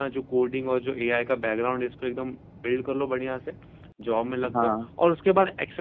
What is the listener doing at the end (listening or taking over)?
listening